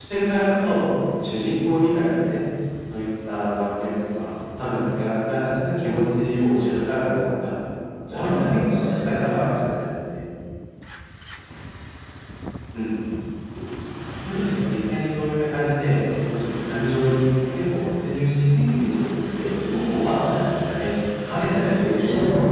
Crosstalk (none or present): present